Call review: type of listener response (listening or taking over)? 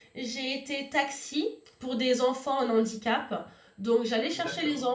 listening